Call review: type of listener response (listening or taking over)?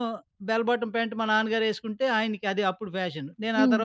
listening